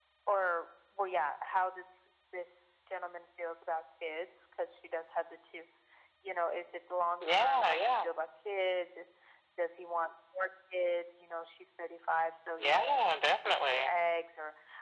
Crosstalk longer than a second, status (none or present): present